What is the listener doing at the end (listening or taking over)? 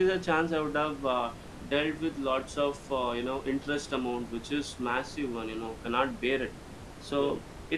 listening